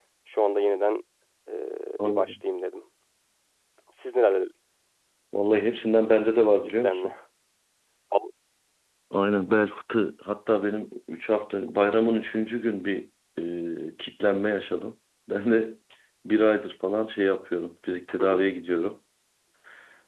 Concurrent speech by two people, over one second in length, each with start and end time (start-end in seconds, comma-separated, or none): none